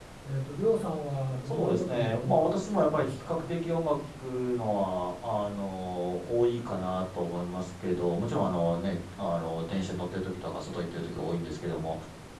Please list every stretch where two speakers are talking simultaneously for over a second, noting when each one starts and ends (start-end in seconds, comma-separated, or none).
1.5-3.5